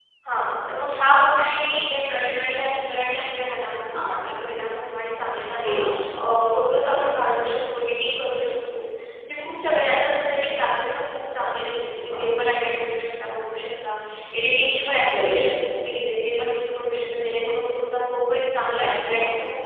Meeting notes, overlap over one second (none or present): none